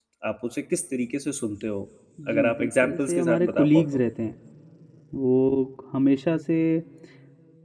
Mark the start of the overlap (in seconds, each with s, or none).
2.3 s